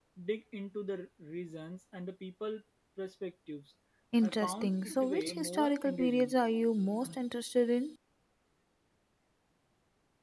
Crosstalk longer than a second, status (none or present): present